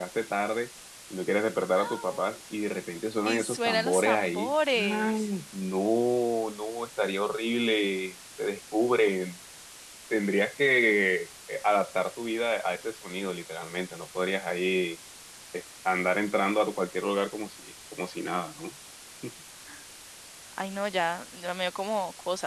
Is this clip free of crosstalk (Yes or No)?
No